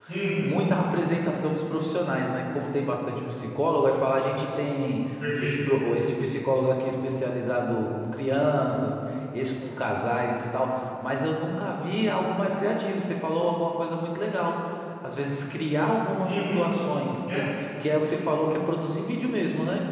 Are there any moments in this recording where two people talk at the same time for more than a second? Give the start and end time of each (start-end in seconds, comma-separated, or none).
none